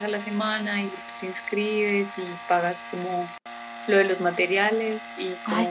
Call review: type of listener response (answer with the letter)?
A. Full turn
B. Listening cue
A